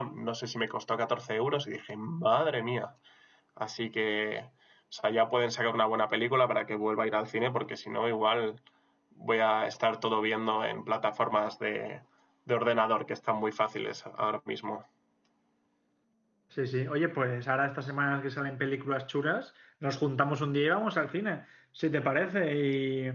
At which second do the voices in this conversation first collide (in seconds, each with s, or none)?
none